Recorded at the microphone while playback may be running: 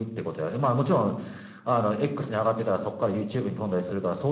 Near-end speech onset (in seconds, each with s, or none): none